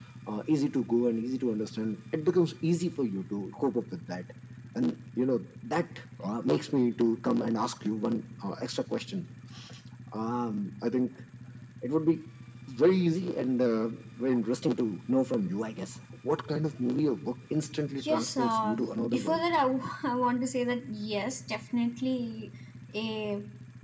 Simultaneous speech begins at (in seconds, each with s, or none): 18.0 s